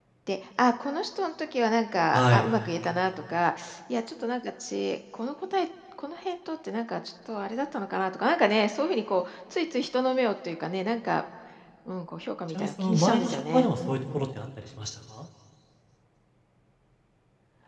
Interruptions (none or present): present